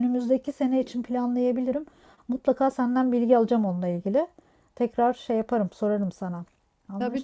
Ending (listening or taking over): taking over